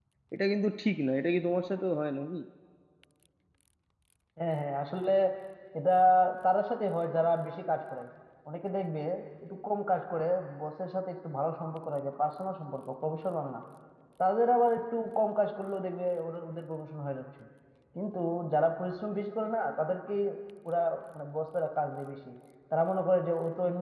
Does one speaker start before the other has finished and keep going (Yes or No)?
No